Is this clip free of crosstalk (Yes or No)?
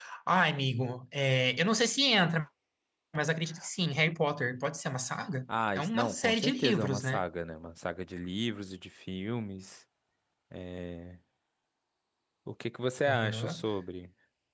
No